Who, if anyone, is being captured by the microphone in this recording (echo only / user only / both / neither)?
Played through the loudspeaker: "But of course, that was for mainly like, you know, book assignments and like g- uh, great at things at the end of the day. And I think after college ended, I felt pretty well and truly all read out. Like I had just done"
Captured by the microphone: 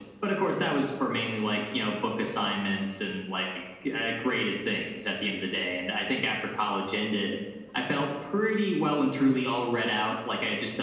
echo only